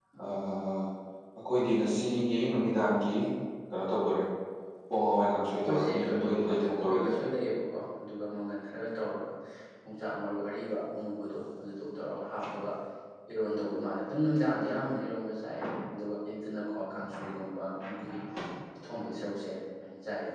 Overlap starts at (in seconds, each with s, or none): 5.6 s